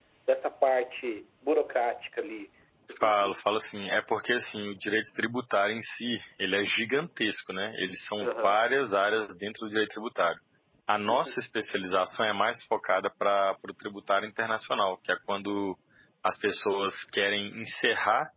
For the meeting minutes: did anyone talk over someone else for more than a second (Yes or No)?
No